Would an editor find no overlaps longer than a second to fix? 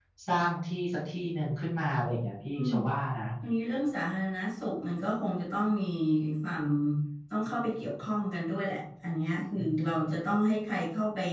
Yes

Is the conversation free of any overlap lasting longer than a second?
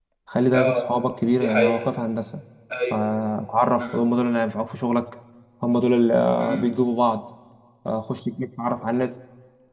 Yes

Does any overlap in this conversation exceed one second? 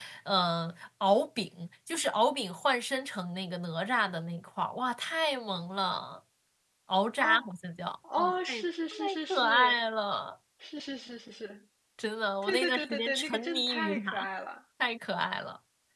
Yes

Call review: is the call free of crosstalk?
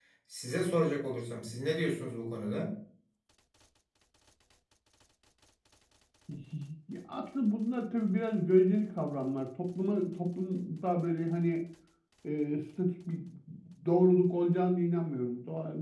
Yes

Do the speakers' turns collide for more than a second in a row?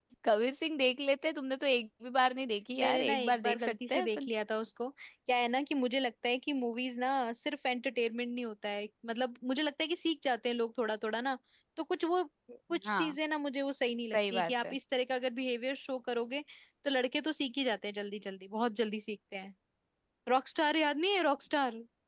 Yes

